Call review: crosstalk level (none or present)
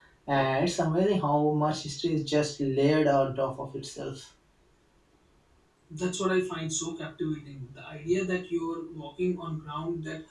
none